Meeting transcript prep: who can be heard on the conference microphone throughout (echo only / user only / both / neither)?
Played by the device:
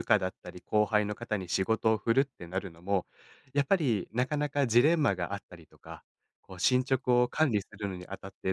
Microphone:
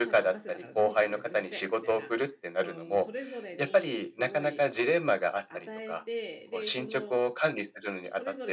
both